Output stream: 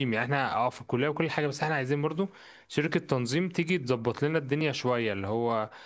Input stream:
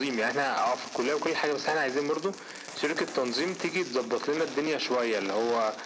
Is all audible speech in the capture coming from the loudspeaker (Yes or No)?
Yes